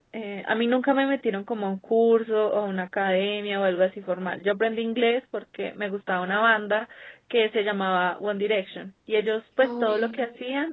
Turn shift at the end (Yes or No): No